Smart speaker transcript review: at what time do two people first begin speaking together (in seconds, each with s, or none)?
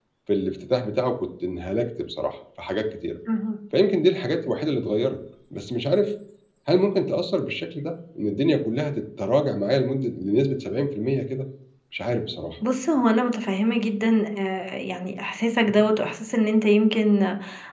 none